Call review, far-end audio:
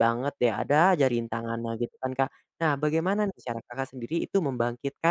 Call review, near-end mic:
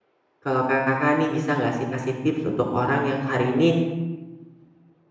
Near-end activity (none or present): present